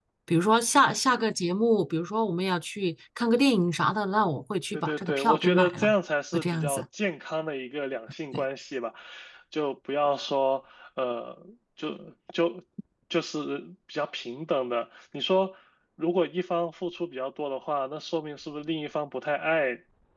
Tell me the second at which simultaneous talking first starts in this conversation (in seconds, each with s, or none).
4.7 s